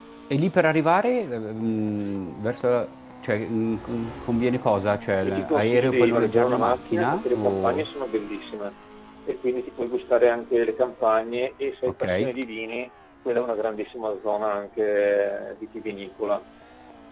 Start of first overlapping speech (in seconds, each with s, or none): 5.2 s